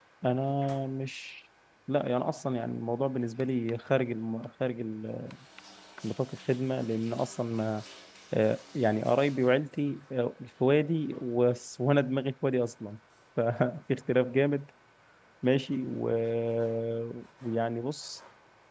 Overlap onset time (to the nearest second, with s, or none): none